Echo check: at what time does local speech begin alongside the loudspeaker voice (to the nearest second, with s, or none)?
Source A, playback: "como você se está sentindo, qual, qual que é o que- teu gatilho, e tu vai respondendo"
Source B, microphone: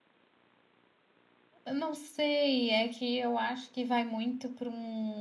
2 s